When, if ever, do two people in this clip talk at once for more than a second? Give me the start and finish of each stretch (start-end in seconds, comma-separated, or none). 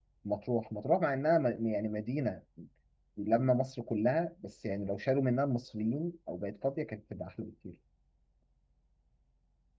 none